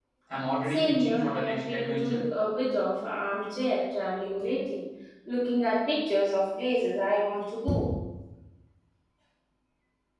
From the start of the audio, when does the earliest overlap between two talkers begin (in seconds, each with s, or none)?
0.7 s